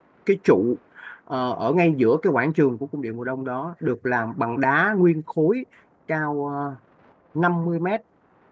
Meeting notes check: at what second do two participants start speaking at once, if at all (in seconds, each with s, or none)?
none